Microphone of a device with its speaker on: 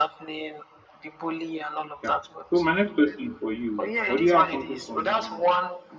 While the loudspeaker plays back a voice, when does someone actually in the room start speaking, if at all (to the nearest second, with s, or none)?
2 s